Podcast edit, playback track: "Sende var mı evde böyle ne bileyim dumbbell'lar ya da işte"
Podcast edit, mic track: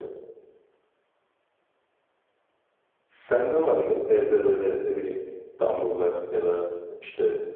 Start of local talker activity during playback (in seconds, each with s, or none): none